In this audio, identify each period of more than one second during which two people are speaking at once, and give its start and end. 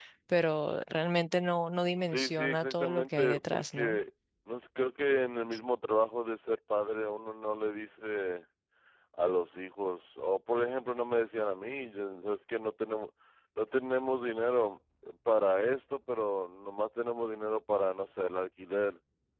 2.0-4.0

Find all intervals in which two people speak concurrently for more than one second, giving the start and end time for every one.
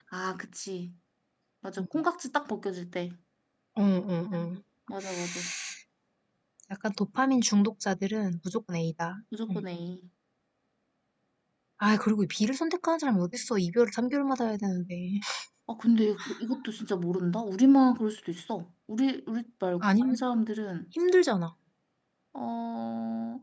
none

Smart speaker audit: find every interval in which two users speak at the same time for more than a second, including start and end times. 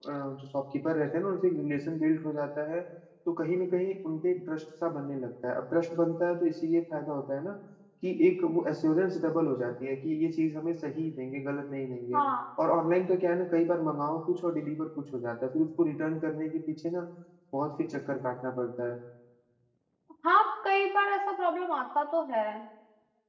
none

